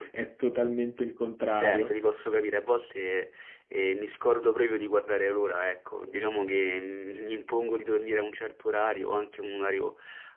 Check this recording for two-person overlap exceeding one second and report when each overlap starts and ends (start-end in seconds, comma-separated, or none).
none